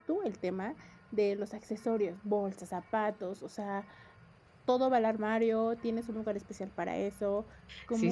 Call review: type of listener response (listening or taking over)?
taking over